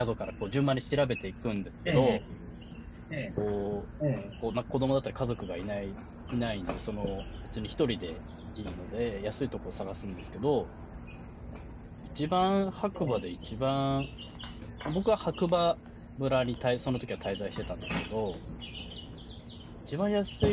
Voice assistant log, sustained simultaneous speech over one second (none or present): none